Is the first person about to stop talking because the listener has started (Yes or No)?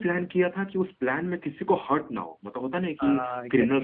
No